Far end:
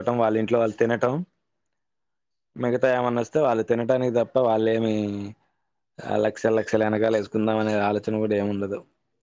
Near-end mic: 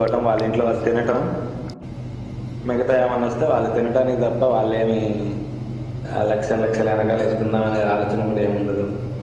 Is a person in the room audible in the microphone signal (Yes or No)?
No